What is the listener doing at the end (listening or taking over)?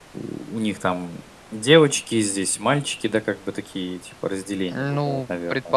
taking over